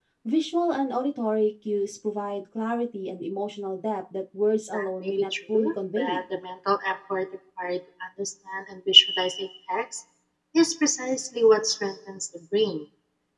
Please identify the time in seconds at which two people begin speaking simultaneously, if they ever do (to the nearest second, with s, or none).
5 s